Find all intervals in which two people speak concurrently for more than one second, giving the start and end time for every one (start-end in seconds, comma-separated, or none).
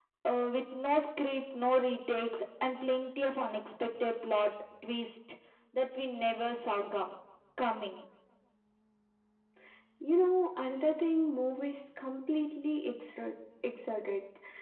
none